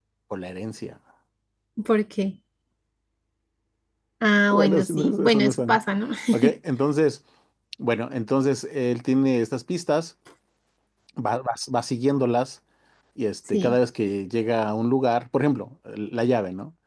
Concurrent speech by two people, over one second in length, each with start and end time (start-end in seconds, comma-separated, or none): 4.5-5.8